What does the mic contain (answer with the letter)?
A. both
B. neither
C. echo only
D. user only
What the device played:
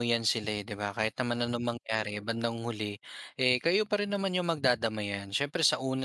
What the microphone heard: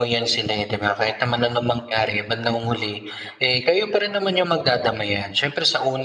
C